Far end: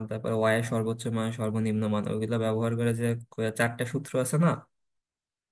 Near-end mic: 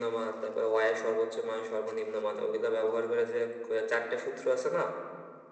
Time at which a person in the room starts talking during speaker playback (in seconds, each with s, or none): none